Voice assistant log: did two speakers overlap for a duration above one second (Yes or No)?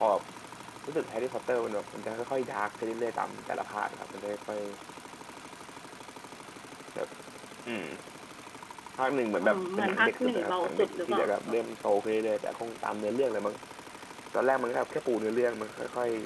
Yes